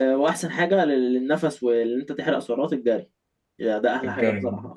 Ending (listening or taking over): listening